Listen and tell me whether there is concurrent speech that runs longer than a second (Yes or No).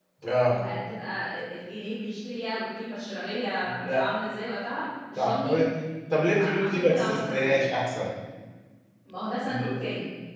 Yes